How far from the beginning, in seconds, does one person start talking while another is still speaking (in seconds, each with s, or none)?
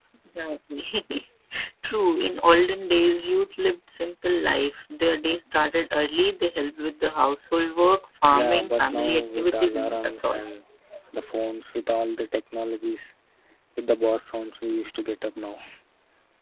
8.3 s